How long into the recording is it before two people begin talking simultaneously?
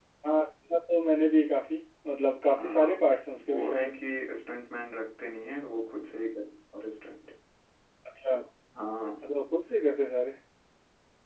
2.6 s

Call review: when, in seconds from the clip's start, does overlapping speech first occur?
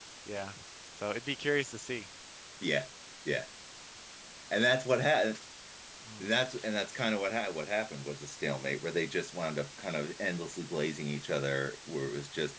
none

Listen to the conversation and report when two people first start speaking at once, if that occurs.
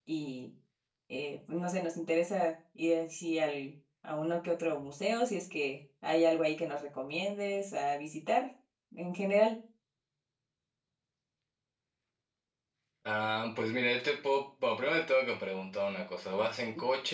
none

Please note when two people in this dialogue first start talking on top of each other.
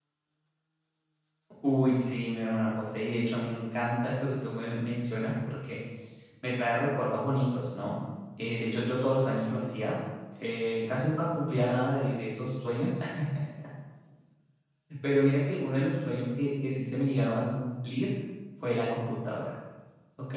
none

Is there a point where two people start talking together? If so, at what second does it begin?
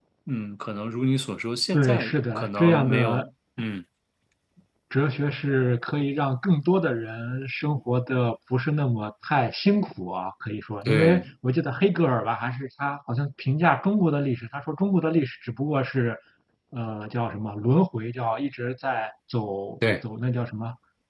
1.7 s

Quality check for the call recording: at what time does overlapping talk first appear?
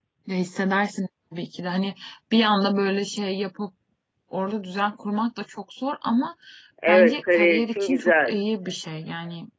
6.9 s

